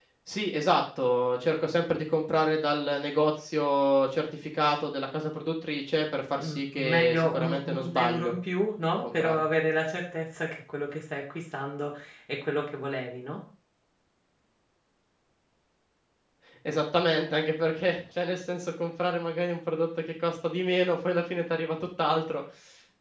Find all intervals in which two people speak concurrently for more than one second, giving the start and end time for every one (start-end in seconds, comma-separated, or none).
6.4-8.3